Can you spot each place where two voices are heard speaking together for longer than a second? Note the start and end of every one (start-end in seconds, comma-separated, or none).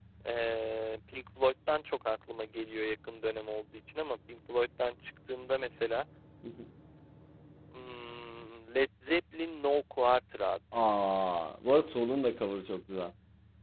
none